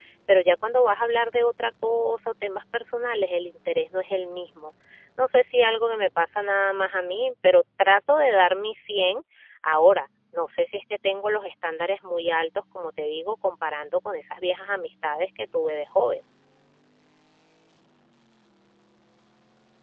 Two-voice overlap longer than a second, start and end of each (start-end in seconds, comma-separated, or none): none